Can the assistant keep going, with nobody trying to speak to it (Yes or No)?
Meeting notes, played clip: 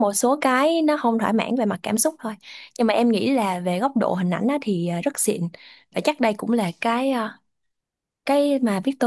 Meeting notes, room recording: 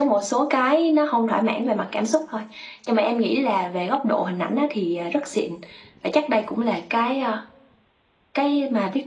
Yes